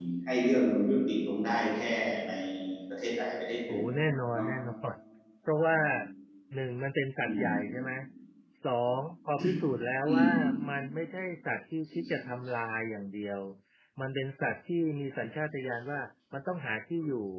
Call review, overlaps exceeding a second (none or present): none